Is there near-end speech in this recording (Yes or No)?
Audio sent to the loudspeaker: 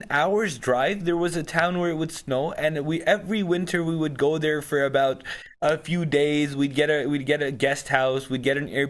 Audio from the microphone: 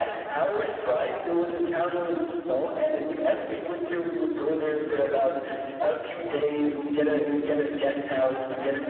Yes